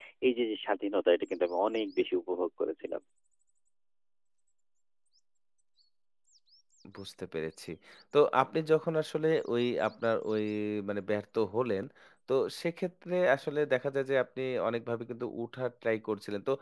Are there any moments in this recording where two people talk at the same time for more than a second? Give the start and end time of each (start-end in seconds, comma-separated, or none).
none